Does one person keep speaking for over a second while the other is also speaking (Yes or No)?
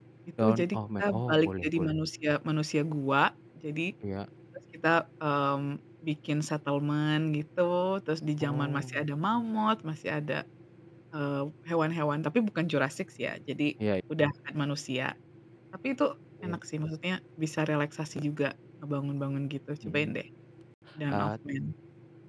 Yes